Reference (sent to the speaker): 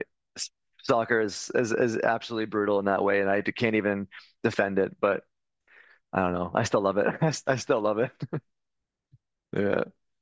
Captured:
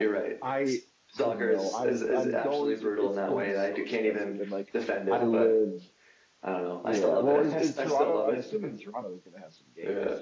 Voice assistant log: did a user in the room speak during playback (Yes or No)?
Yes